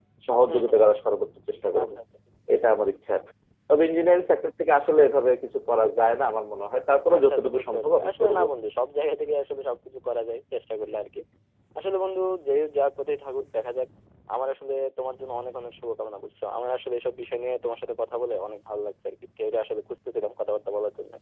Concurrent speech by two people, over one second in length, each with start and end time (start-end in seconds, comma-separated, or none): 7.2-8.4